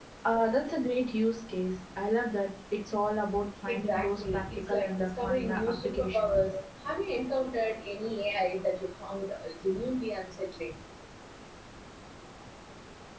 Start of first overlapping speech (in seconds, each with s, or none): 3.7 s